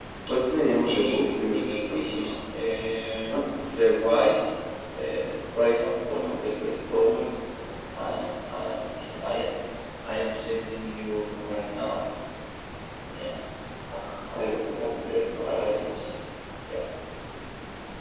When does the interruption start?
0.8 s

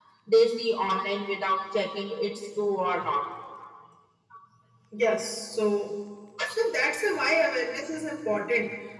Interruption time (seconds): none

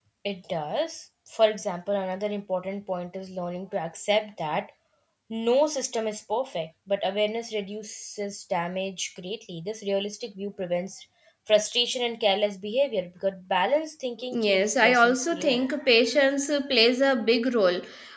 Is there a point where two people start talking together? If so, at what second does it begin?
14.3 s

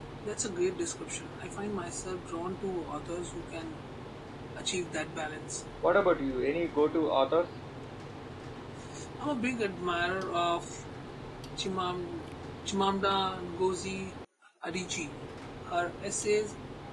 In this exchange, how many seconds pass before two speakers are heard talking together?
none

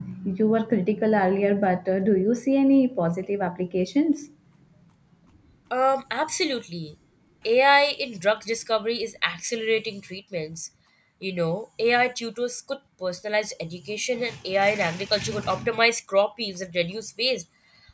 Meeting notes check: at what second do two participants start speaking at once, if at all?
none

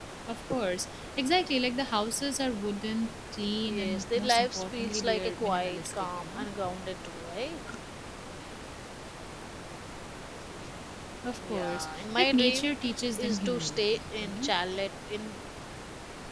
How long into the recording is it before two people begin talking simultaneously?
3.7 s

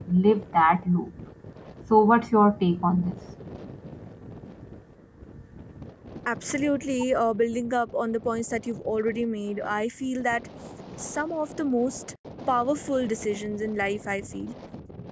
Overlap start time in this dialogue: none

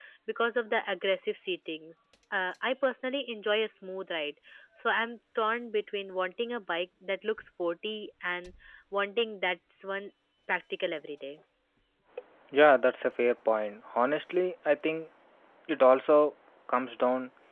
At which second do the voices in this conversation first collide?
none

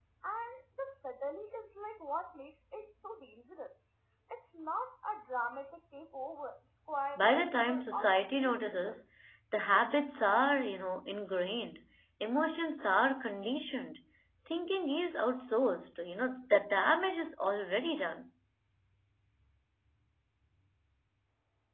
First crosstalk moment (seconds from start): 7.2 s

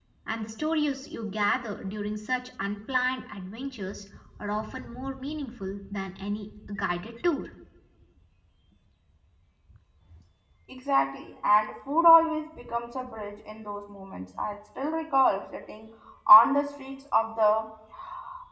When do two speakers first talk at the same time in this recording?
none

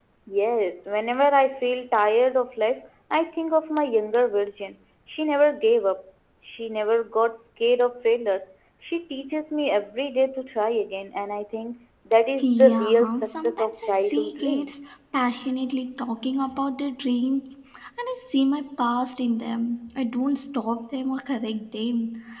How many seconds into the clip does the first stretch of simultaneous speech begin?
12.4 s

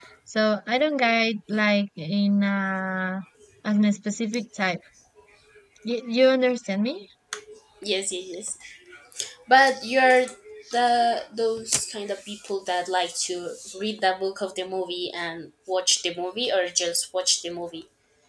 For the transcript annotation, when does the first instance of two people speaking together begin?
none

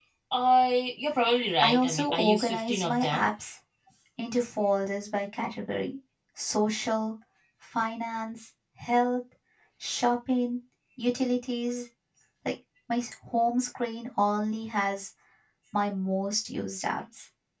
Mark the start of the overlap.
1.6 s

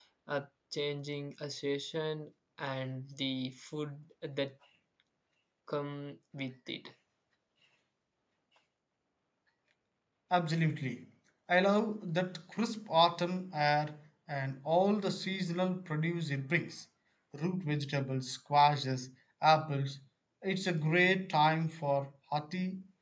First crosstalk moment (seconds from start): none

